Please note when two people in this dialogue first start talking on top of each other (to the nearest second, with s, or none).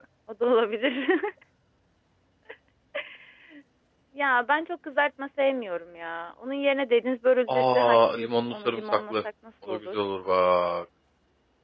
7 s